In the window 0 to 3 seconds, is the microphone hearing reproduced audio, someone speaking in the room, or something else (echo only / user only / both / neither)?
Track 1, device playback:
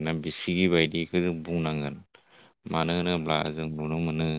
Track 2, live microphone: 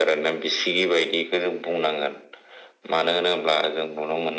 echo only